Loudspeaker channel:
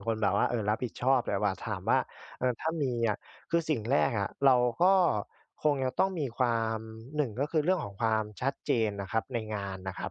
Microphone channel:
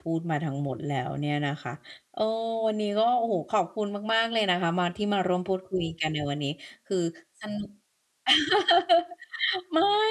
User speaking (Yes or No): Yes